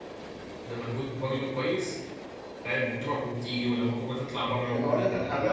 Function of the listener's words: taking over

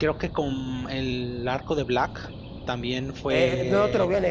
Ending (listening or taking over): taking over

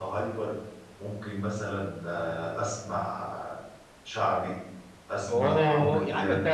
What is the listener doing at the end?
taking over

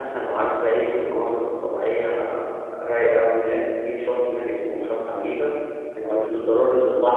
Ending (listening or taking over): listening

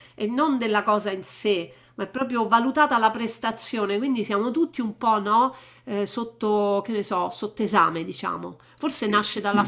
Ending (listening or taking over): listening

